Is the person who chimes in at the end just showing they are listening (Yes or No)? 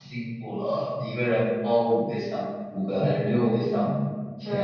No